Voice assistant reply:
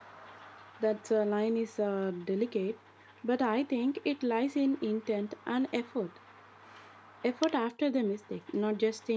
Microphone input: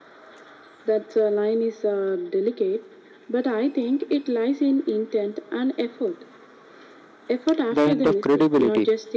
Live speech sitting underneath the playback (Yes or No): No